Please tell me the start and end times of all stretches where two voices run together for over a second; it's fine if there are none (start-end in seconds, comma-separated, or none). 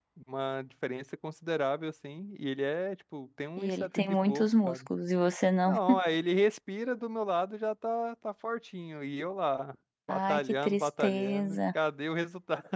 3.6-4.9, 10.1-11.6